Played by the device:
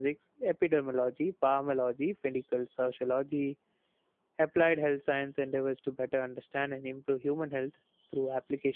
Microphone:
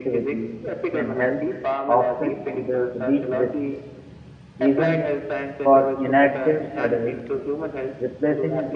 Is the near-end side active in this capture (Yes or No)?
Yes